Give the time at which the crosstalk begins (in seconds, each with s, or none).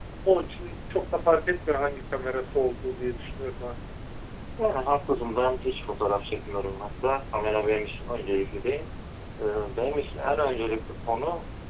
none